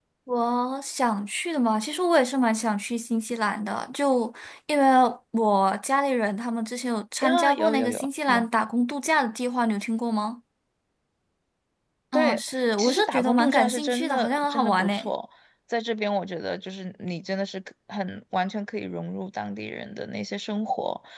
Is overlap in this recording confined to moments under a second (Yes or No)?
No